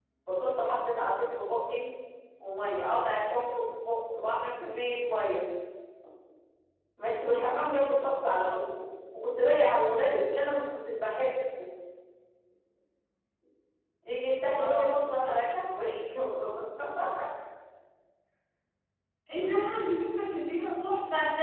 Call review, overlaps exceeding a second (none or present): none